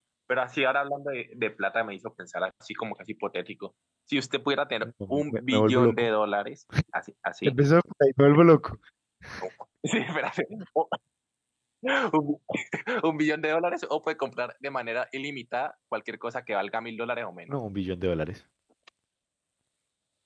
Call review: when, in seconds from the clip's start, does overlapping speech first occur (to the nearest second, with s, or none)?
5 s